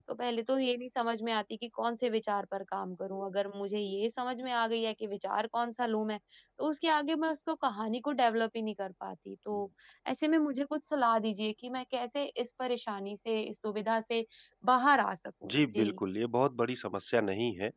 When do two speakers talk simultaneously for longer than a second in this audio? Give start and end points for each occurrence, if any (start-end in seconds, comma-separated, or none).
none